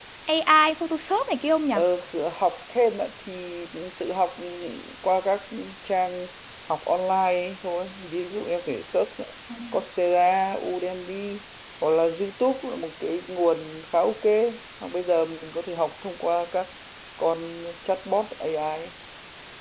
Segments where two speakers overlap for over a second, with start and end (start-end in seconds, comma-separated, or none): none